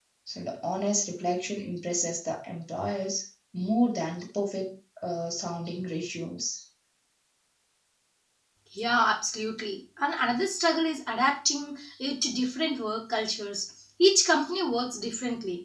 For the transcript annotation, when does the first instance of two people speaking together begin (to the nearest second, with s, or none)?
none